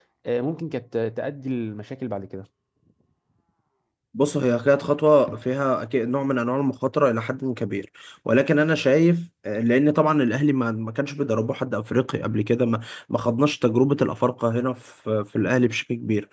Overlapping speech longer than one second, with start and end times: none

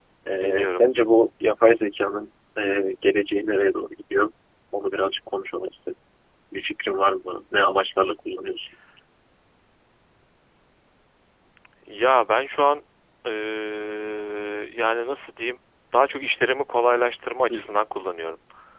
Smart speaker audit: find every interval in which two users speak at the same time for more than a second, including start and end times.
none

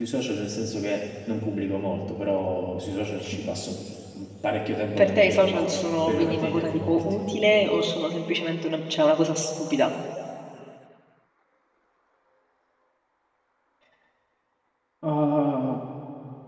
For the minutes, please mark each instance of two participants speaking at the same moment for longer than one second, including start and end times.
5.0-7.2

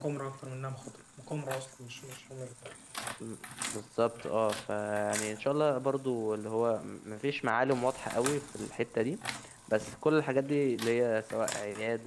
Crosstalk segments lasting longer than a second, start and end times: none

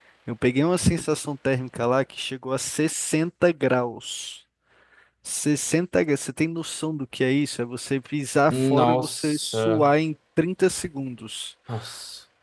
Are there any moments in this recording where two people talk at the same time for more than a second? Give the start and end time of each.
8.5-9.9

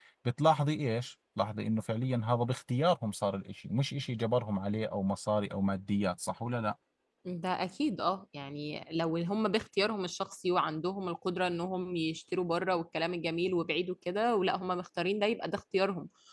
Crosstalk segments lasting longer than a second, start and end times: none

